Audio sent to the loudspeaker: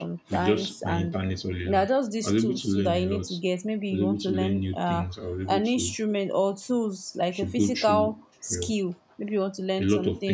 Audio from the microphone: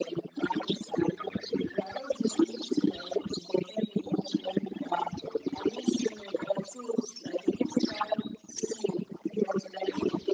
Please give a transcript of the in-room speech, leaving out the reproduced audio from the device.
none

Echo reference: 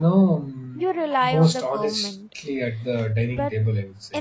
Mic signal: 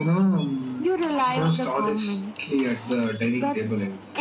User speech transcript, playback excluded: none

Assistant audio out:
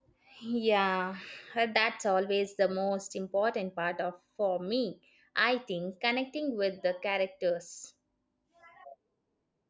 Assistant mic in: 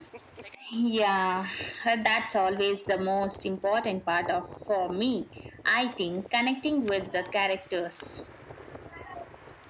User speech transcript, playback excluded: none

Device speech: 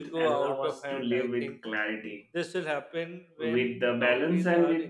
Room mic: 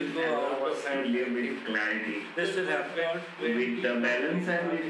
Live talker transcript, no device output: people would not be able to

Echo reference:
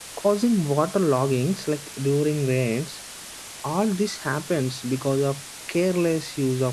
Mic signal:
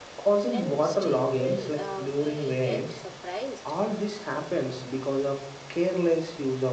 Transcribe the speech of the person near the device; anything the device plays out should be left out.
and still will uh, we act surprised

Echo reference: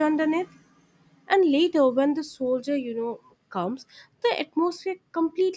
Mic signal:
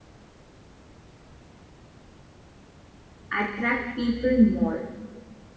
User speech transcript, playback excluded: attract people more

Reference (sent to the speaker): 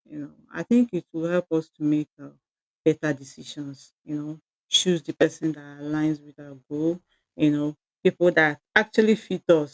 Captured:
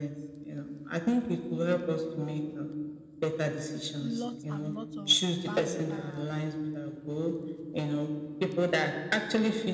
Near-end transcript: lots and lots of bad uh

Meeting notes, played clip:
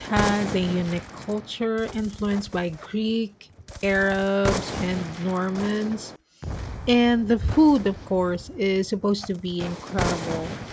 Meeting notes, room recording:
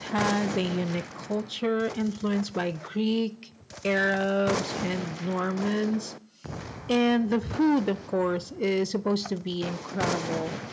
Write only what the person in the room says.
none

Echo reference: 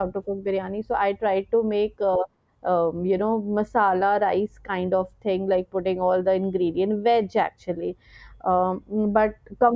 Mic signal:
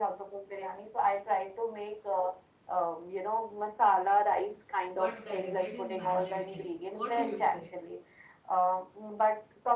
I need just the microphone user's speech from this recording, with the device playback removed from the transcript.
but the dessert is mandatory what do you say

